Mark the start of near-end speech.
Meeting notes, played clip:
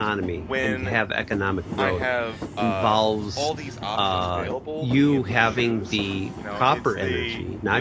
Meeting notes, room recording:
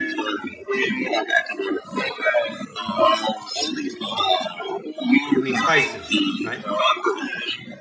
5.3 s

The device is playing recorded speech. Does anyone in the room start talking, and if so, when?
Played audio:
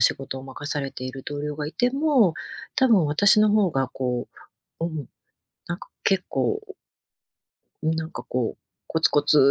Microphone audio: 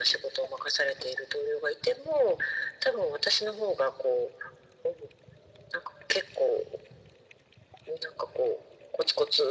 none

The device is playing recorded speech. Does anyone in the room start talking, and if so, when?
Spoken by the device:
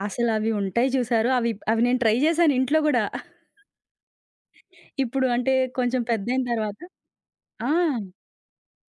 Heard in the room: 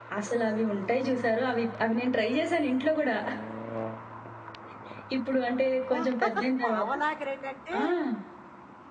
5.7 s

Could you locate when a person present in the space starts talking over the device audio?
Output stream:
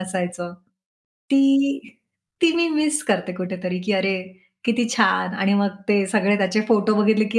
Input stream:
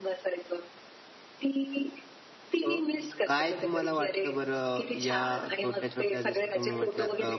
2.7 s

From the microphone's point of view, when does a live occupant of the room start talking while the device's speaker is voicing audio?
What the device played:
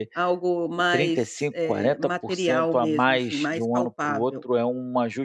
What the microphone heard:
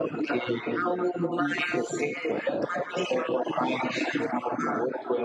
1.2 s

